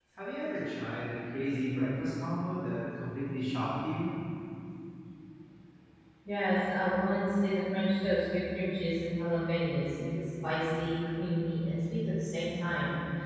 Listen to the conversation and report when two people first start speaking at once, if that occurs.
none

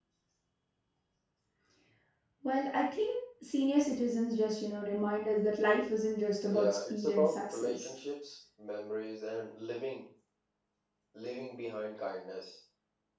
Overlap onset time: 6.5 s

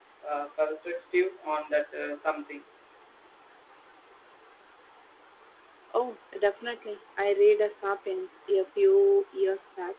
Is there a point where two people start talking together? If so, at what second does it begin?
none

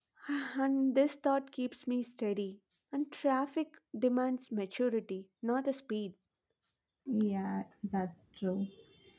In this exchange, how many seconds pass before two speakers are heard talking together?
none

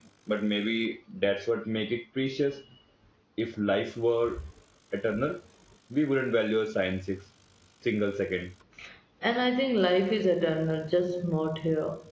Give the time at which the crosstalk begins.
none

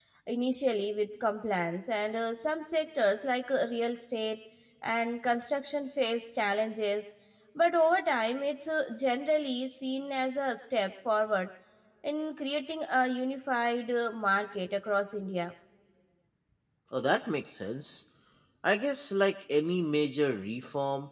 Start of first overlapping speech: none

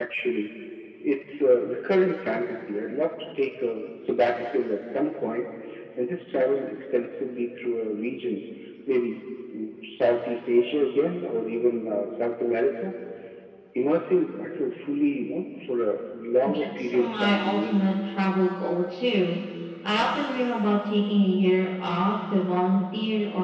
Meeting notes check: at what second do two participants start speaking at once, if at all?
16.4 s

